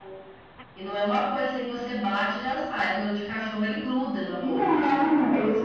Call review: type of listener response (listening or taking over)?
taking over